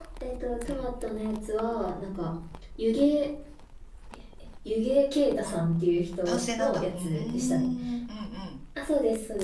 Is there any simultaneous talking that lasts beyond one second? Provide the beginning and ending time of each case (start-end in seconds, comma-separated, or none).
6.2-7.7